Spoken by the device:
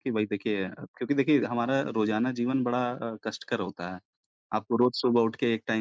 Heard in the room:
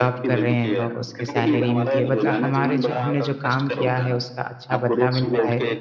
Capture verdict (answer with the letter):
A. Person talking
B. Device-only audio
A